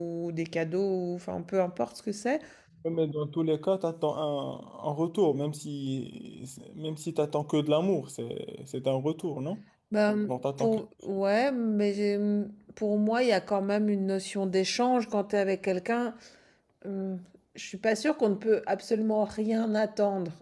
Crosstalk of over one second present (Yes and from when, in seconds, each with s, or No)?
No